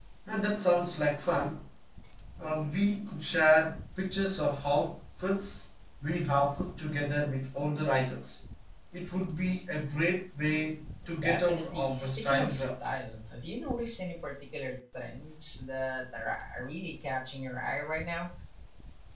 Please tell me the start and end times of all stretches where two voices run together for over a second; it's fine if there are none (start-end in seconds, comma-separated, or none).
11.2-13.0